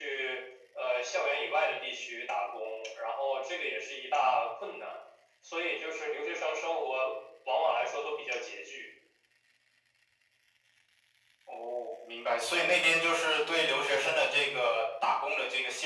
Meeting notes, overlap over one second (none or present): none